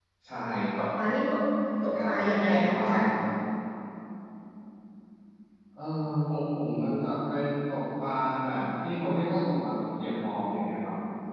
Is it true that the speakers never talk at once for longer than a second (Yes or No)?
No